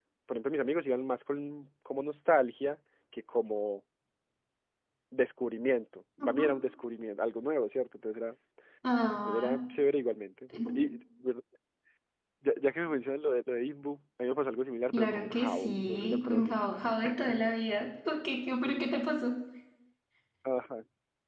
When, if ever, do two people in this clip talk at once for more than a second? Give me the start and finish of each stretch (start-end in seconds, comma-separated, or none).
14.9-16.7